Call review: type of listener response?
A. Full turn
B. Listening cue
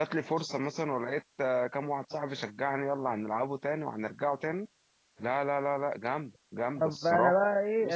A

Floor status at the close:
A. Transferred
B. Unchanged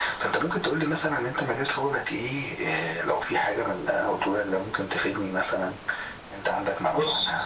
A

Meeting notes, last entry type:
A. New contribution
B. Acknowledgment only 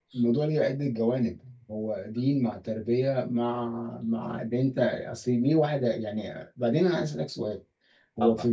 B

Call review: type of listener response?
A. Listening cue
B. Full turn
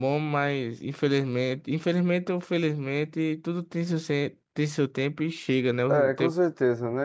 B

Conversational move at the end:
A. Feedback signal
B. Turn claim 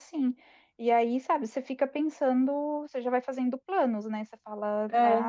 A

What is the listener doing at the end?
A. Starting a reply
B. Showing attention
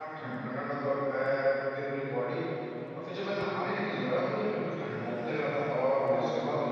B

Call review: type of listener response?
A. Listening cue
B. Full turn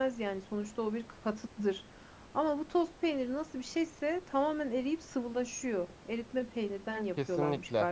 B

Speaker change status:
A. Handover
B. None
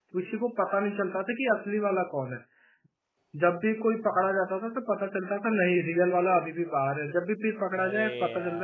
B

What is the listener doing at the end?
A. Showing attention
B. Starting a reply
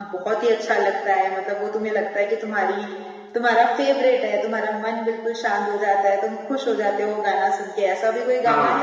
B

